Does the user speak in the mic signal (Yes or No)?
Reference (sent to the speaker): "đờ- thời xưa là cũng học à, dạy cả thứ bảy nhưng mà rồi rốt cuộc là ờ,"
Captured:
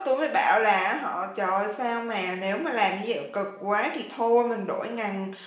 Yes